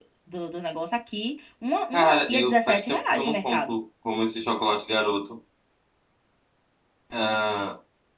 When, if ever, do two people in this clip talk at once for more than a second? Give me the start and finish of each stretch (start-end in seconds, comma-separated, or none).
1.9-3.8